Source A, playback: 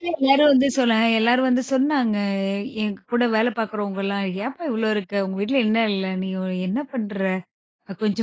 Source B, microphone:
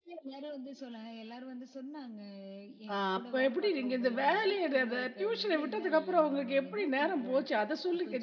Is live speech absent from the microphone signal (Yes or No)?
No